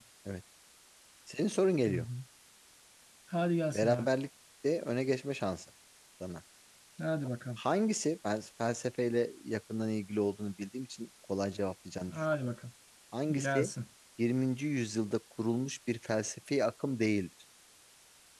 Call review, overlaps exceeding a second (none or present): none